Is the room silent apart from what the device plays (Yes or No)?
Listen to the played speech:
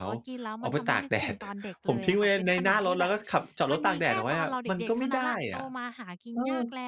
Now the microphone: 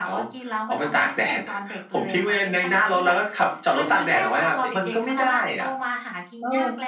No